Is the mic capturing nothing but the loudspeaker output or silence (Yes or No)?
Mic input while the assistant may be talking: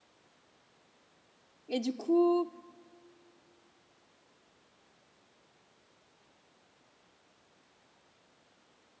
No